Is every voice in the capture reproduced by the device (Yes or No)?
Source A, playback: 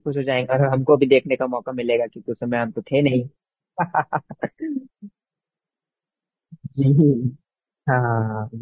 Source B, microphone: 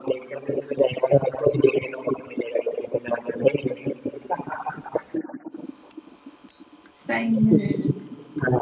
No